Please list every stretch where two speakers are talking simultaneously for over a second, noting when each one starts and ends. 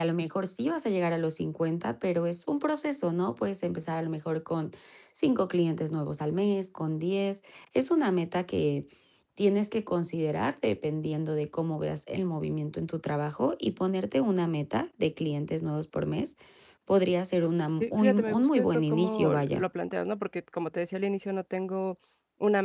17.8-19.7

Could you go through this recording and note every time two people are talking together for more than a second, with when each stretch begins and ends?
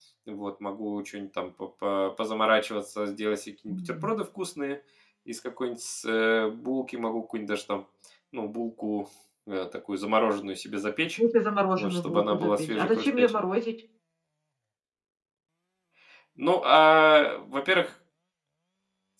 11.8-13.4

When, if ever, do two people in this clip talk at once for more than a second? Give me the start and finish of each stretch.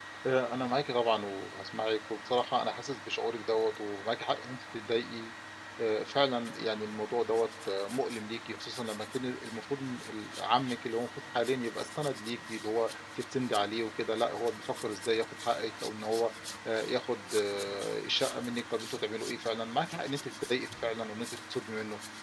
none

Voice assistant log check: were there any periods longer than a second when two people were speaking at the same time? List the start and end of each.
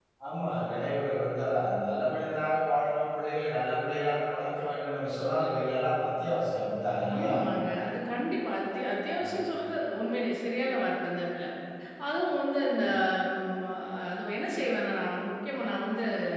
none

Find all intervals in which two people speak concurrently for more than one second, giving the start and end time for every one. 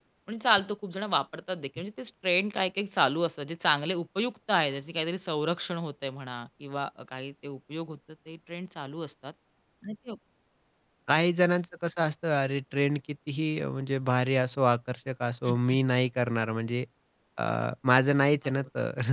none

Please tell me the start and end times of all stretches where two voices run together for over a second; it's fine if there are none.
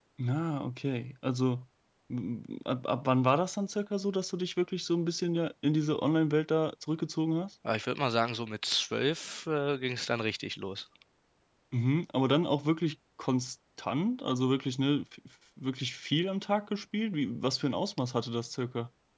none

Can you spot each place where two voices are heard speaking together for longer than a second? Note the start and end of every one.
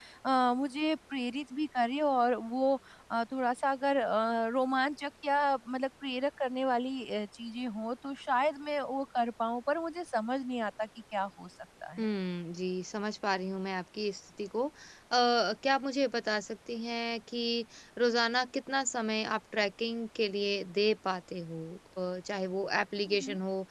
none

